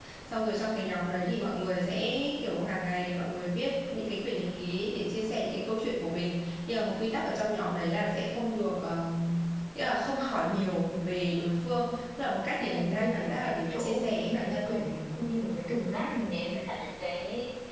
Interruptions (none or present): present